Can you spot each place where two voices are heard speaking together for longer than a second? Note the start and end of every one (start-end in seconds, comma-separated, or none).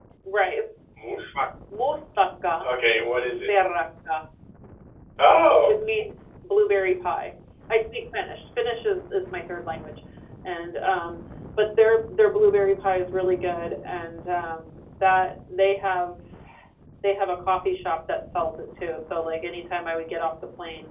none